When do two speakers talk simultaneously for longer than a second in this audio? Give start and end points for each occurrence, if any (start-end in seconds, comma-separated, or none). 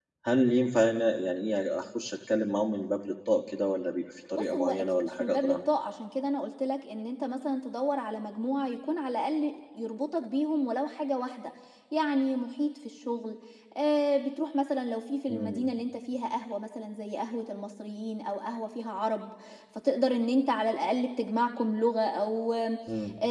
4.4-5.6